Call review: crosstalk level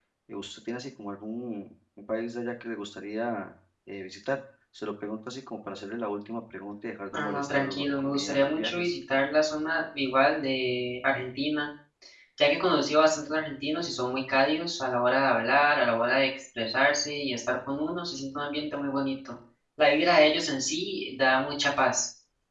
present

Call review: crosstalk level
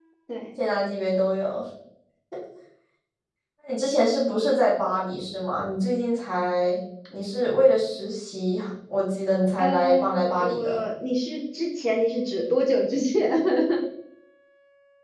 present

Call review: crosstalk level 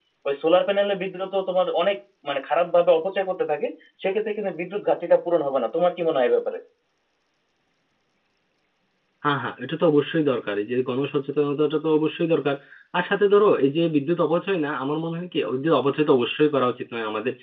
none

